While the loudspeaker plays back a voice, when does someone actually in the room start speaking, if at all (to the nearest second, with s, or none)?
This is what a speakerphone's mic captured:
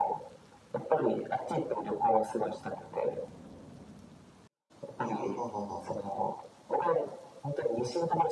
5 s